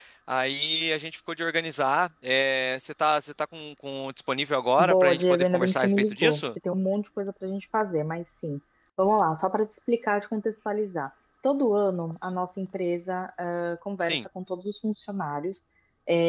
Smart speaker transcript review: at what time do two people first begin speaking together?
4.8 s

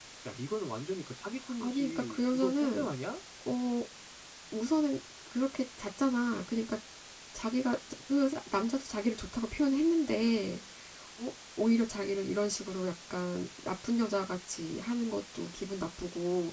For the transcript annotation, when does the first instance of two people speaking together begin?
1.6 s

